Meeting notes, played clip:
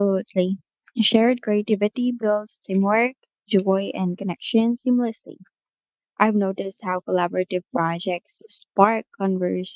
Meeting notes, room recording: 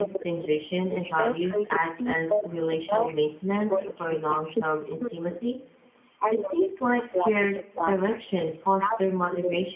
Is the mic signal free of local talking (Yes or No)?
No